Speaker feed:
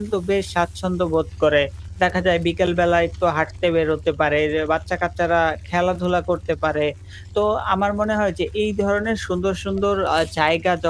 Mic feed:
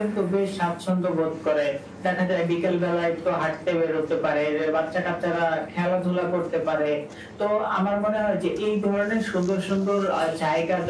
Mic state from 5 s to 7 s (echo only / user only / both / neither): echo only